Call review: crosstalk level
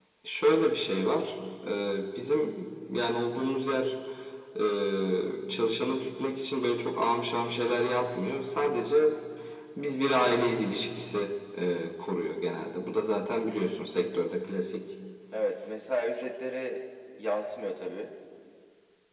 none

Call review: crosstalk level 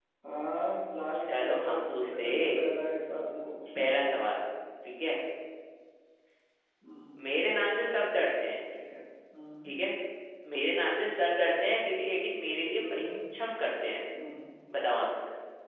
present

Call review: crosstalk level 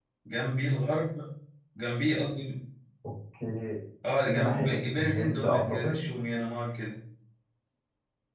present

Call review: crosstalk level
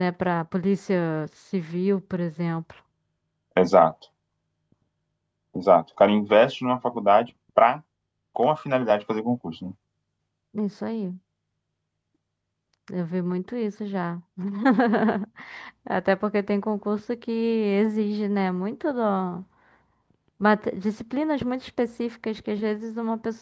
none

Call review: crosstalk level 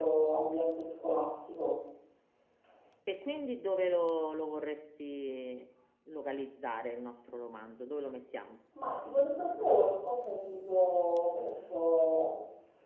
none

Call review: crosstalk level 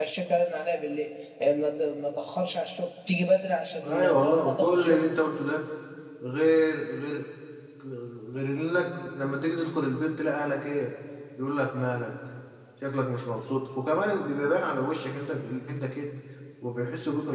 present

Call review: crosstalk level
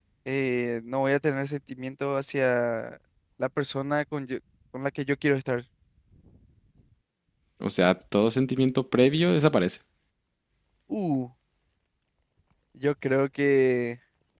none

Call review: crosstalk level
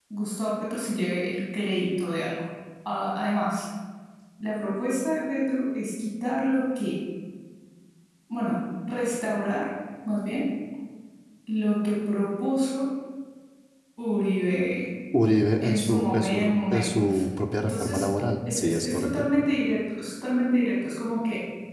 present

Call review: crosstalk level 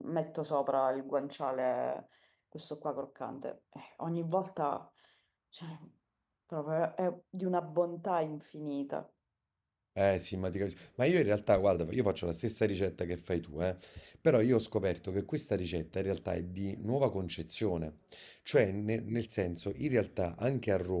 none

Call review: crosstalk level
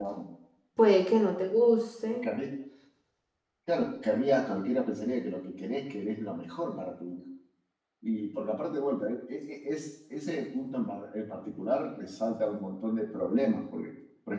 none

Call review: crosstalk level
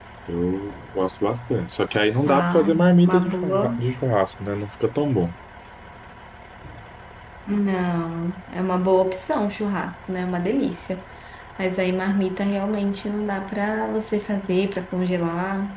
present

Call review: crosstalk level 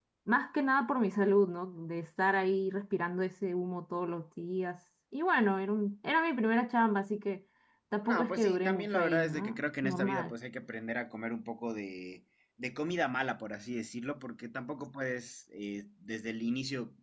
present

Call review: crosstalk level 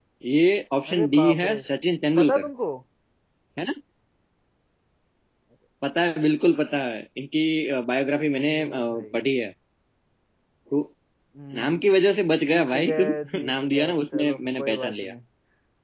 present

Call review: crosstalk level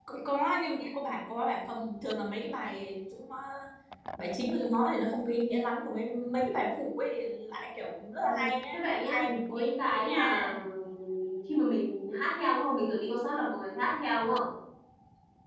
present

